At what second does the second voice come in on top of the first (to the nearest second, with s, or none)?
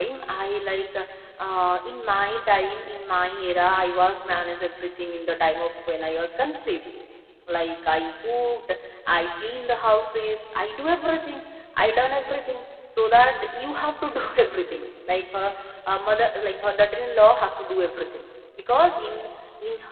none